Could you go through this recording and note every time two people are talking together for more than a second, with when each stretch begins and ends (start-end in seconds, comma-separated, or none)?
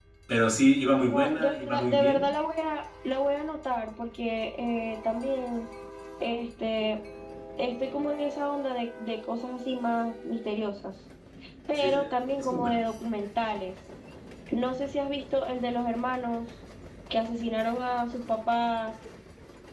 1.0-2.3